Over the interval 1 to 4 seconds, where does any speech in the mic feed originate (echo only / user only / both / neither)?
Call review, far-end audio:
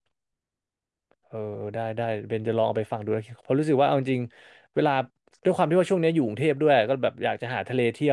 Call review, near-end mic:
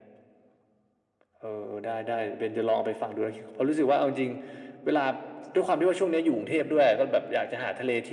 echo only